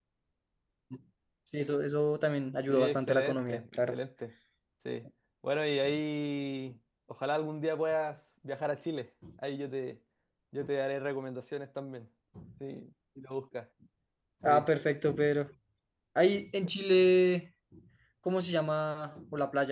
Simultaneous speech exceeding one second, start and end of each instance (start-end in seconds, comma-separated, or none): 2.7-4.0